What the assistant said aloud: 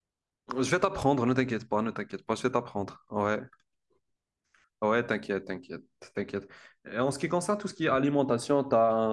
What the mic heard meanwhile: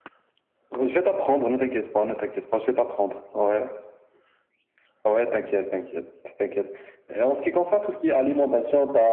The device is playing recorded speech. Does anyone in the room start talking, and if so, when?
none

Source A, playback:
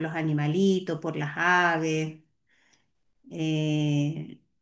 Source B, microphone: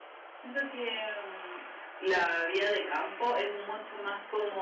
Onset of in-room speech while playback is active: 0.3 s

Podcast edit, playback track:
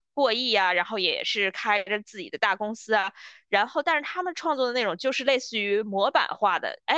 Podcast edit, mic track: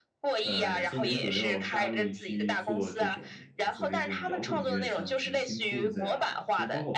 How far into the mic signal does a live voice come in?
0.4 s

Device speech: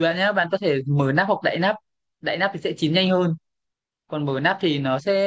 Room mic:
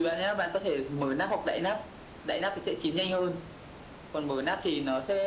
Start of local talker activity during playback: none

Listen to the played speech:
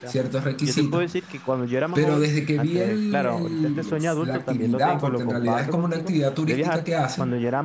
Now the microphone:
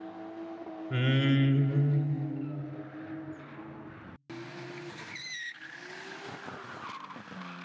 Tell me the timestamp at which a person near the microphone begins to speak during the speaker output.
0.9 s

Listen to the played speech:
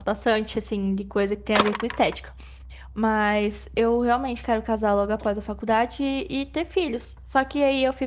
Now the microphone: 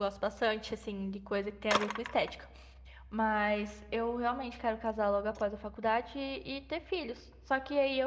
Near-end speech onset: none

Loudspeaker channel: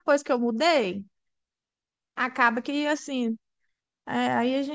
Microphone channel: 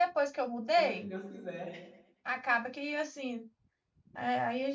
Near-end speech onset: 0.8 s

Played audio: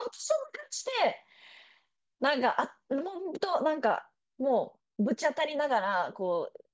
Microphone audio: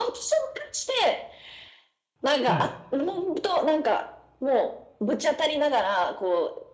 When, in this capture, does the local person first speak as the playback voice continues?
2.4 s

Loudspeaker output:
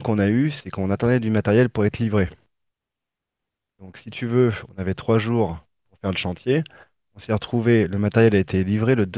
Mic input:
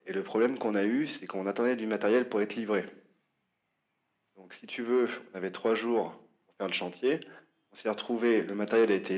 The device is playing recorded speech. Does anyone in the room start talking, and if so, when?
none

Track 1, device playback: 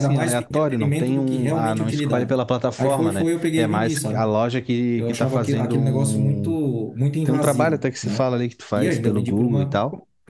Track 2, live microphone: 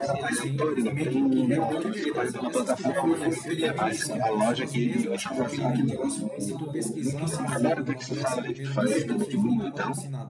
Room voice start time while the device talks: 0.3 s

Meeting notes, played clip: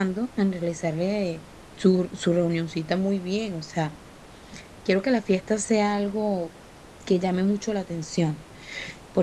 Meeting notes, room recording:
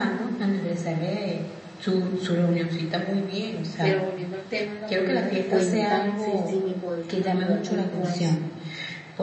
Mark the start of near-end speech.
3.8 s

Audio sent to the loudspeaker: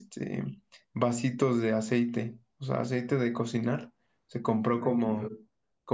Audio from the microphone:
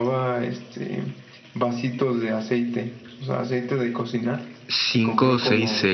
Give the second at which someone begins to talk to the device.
4.7 s

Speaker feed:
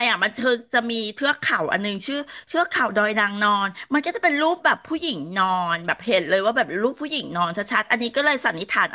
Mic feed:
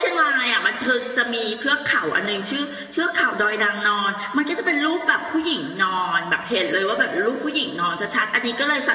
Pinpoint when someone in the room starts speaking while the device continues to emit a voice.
none

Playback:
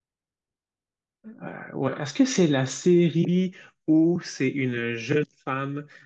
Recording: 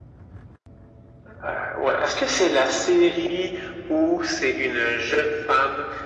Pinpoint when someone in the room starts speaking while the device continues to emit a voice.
none

